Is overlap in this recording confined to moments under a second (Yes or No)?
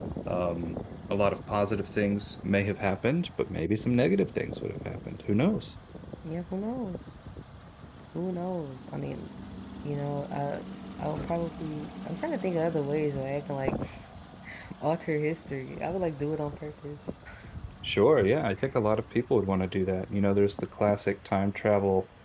Yes